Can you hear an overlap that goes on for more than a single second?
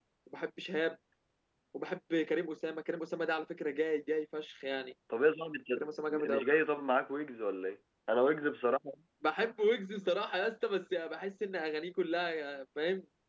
No

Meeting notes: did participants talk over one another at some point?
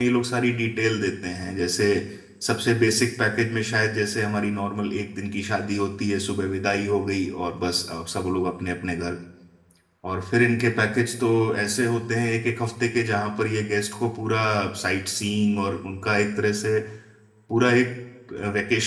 No

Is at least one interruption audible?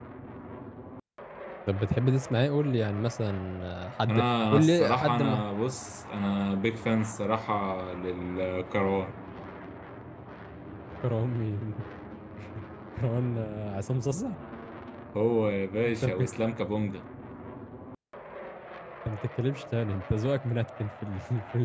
Yes, from 4.1 s

